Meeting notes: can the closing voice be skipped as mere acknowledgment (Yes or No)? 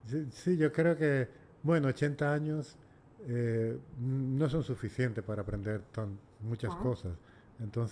Yes